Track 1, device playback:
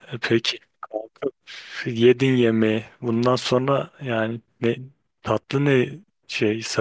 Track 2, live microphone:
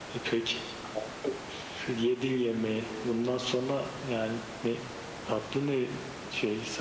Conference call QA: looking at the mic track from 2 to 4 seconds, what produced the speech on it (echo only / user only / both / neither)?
echo only